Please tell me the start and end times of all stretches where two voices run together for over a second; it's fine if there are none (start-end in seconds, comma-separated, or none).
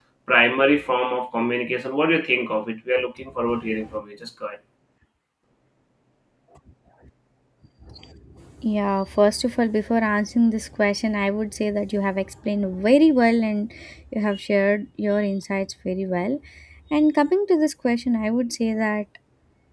none